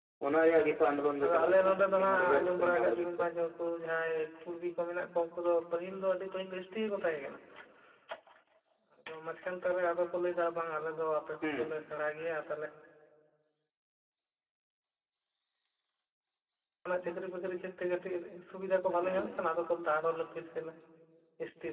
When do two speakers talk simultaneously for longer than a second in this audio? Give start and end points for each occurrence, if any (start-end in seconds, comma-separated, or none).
1.2-3.2